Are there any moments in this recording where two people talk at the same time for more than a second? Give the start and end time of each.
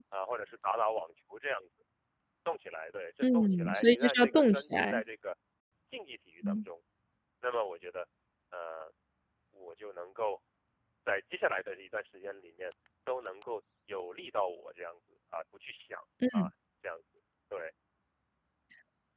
3.3-5.0

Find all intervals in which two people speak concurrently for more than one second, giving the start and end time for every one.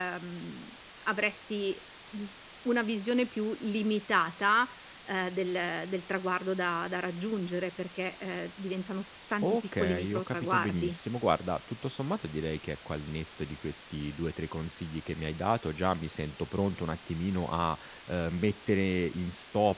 9.4-11.0

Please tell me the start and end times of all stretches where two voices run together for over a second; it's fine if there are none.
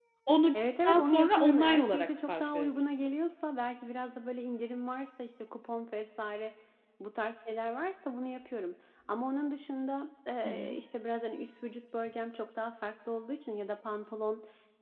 0.8-3.0

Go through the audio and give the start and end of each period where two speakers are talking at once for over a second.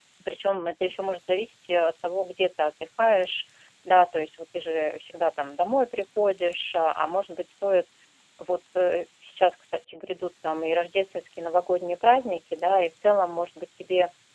none

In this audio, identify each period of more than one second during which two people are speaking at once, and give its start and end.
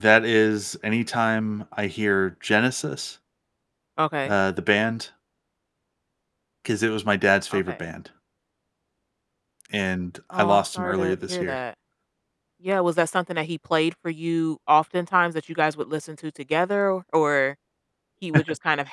10.3-11.6

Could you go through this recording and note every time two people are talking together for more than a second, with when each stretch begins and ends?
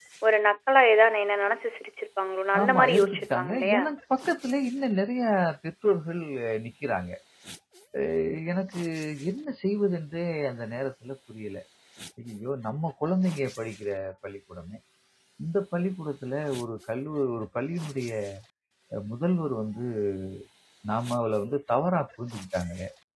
2.6-3.8

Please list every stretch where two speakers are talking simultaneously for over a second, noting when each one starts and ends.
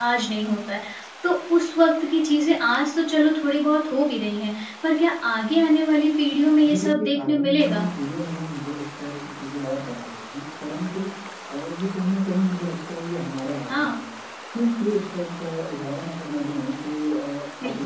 6.6-7.9

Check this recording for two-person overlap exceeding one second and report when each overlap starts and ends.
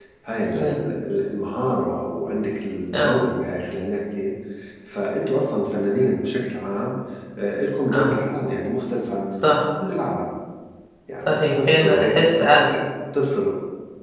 11.2-12.8

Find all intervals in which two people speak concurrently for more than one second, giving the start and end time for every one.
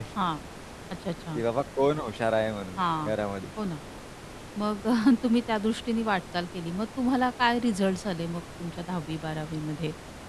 none

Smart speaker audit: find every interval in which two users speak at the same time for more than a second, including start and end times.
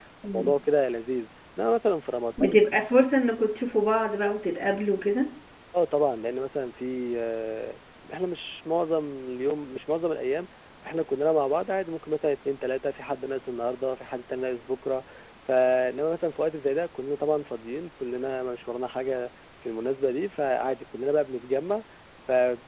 none

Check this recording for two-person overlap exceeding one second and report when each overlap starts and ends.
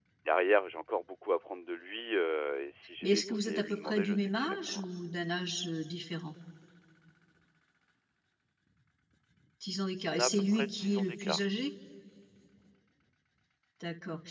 3.0-4.8, 10.1-11.4

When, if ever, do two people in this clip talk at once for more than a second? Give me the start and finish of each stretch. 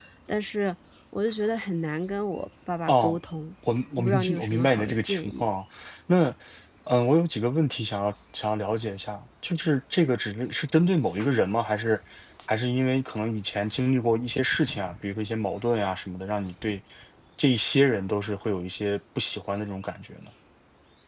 3.9-5.5

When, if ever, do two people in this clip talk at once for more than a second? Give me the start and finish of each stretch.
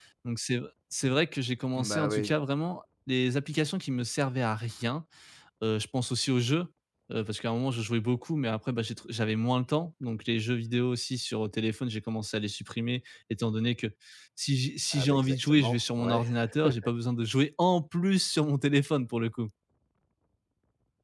14.9-16.2

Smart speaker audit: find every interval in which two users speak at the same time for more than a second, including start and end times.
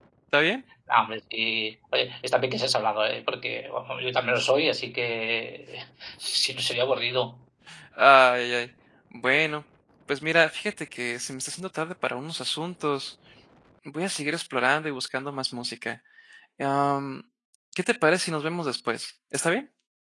none

